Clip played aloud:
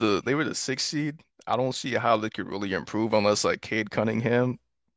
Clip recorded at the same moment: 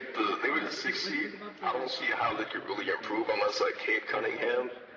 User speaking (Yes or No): Yes